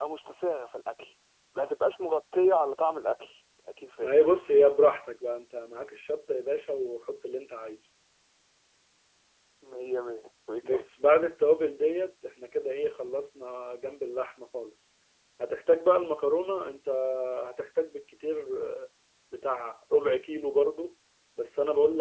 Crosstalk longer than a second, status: none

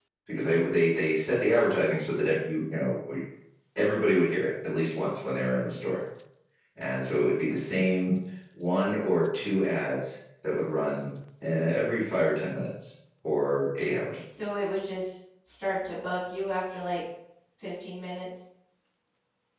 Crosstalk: none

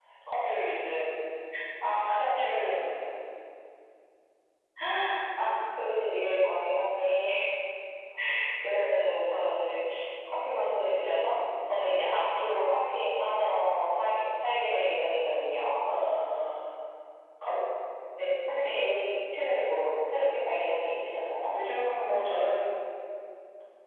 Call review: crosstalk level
none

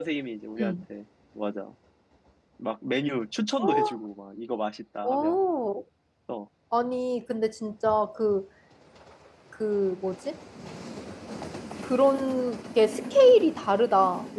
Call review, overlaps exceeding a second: none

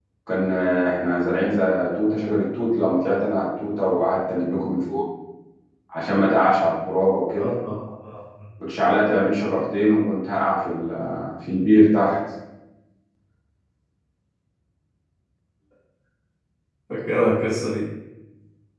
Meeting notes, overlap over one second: none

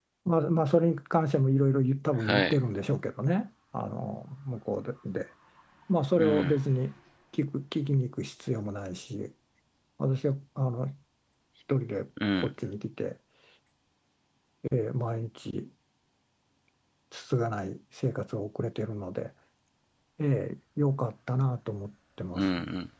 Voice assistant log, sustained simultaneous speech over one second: none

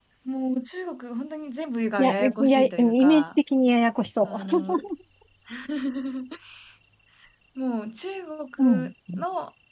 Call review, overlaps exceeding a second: present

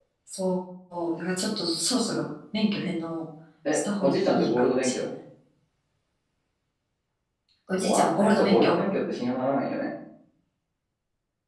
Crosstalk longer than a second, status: present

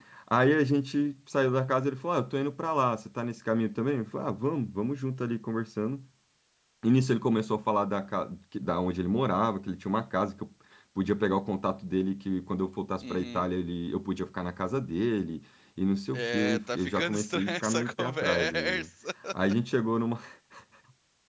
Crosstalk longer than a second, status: present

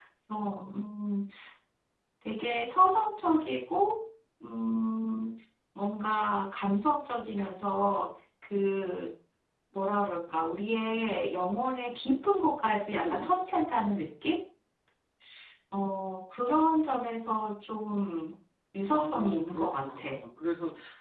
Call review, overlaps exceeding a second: present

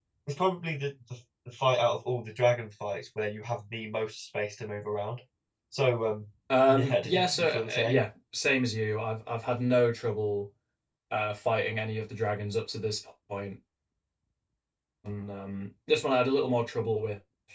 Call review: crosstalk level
present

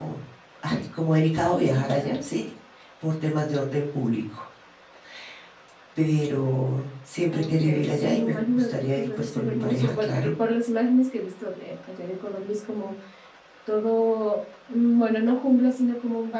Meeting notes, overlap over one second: present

